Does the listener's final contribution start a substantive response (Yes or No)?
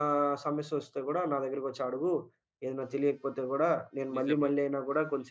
No